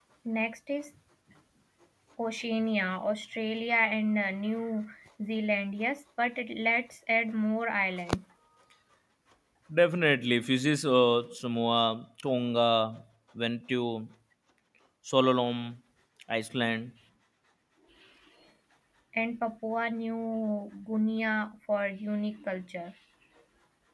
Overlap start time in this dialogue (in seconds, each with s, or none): none